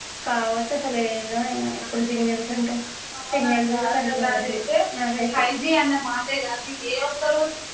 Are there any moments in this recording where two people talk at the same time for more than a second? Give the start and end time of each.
3.3-4.6

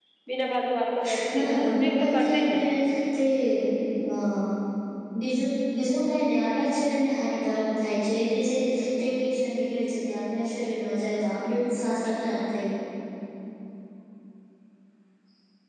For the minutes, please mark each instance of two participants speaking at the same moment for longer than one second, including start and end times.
1.3-2.6

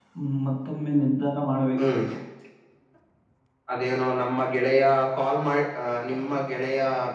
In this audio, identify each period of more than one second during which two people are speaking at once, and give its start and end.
none

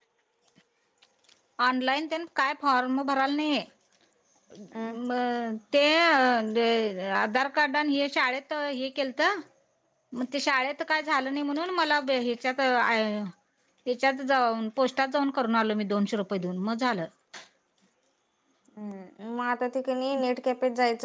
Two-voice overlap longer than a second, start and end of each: none

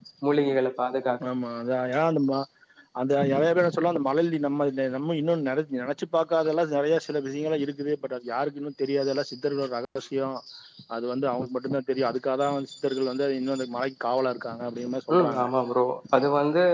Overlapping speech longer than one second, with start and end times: none

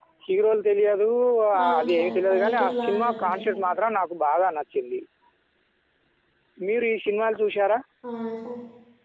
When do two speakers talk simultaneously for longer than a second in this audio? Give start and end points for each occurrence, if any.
1.8-3.5

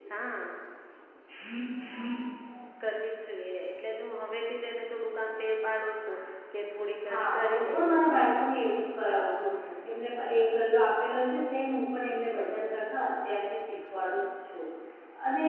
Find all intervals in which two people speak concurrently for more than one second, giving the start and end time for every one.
7.1-8.3

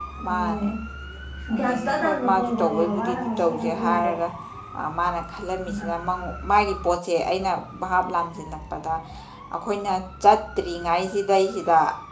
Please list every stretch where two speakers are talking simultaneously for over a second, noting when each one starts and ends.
1.6-4.1

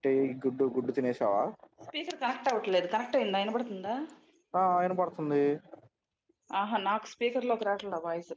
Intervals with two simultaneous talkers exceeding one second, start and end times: none

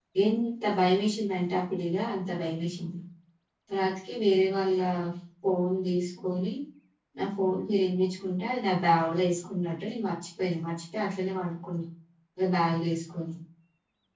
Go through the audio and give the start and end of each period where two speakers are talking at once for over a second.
none

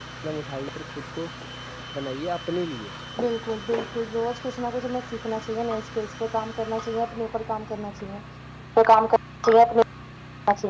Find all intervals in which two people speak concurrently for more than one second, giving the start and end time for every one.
none

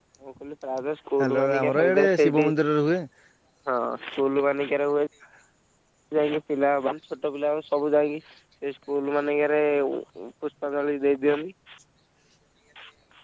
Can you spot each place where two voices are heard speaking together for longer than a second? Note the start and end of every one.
1.2-2.5

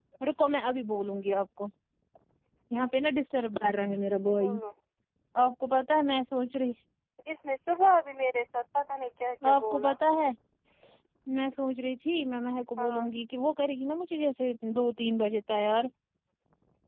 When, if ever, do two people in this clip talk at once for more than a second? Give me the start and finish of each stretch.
none

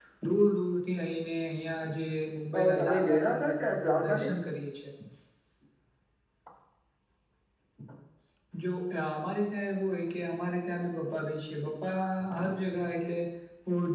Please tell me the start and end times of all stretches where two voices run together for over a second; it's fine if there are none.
2.5-4.3

